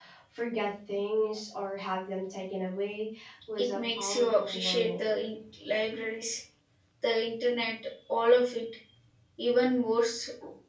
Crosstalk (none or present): present